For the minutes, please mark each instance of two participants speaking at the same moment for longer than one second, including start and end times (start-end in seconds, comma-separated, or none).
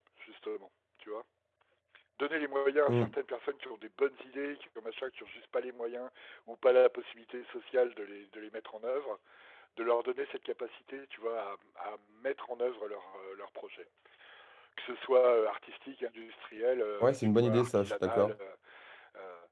17.0-18.3